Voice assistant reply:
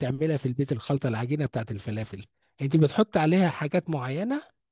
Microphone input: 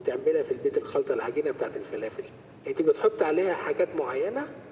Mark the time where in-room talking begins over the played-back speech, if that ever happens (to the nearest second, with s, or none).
none